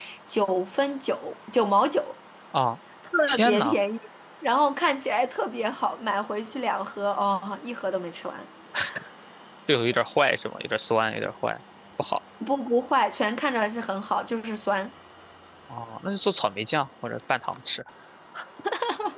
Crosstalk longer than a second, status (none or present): none